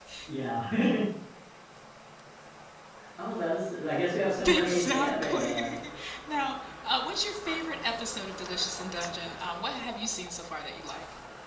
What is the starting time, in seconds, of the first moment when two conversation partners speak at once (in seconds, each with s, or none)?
4.4 s